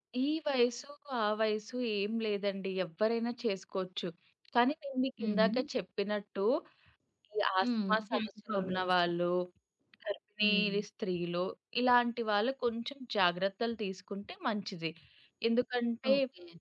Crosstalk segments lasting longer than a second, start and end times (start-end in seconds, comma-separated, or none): 7.6-8.9